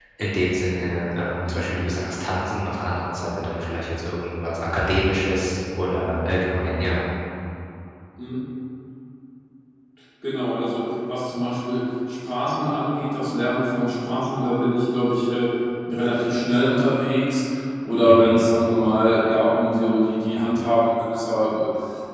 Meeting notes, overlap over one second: none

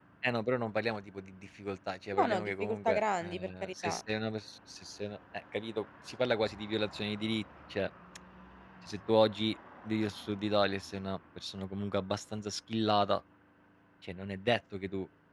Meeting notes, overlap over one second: present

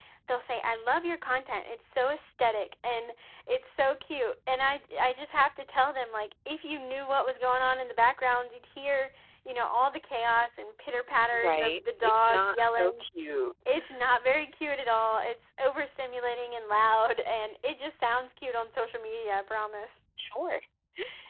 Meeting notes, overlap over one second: present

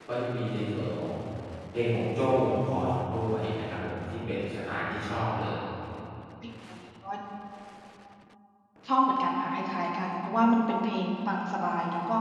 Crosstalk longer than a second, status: none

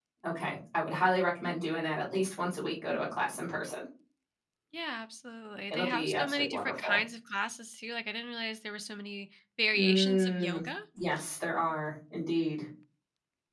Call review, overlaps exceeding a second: present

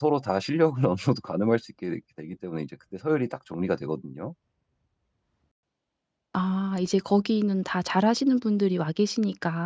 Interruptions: none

